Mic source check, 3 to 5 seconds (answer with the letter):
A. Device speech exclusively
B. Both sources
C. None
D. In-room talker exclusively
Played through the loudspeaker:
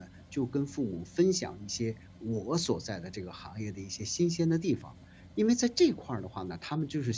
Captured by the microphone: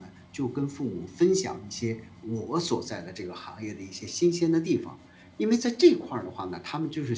A